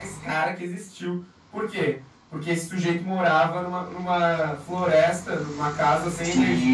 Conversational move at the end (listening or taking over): taking over